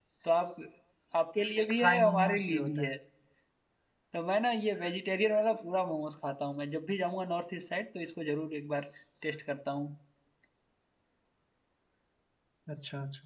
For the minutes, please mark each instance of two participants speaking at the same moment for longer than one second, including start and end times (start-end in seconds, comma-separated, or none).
1.6-2.9